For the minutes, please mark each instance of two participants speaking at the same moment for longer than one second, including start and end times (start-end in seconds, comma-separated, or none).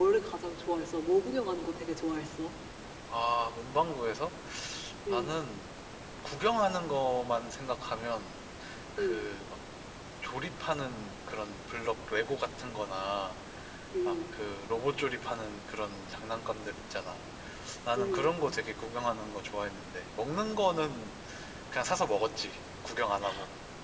none